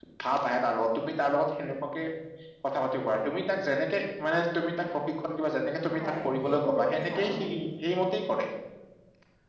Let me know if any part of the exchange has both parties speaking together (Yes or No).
Yes